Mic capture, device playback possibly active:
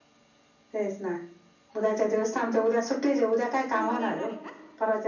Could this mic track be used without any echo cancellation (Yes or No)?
No